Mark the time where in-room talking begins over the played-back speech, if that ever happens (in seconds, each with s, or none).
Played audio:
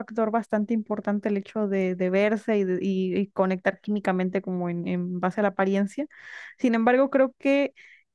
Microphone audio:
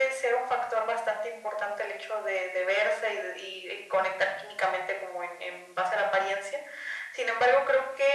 none